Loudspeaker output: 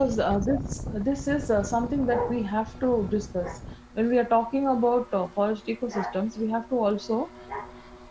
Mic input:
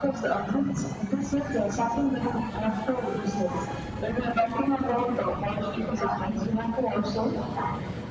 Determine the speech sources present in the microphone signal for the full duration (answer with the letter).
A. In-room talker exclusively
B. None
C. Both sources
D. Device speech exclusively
D